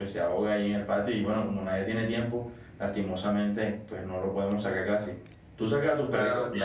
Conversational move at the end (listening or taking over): taking over